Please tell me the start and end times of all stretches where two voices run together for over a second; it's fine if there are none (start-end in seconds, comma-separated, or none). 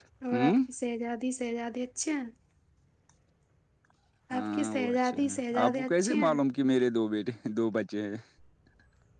4.4-6.4